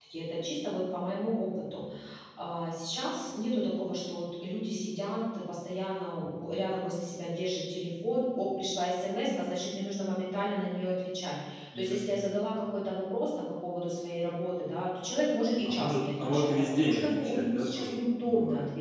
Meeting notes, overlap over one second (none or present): present